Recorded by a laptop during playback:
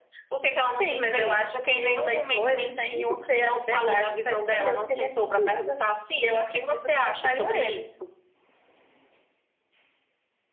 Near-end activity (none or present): none